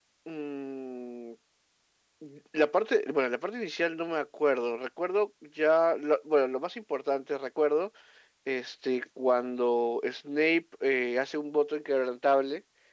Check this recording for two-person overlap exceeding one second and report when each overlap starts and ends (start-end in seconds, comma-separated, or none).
none